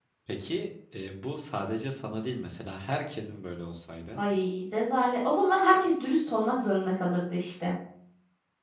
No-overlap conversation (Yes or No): Yes